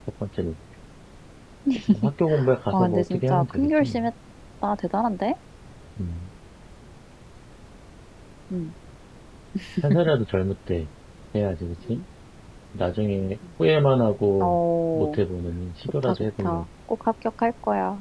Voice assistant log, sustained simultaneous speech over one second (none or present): present